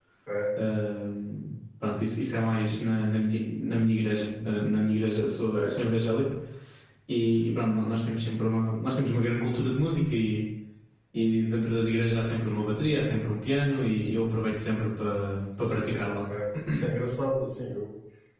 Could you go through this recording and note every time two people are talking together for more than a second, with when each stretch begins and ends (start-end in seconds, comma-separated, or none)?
none